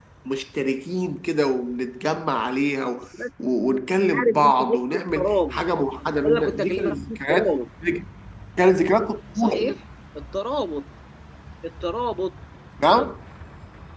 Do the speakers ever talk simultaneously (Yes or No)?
Yes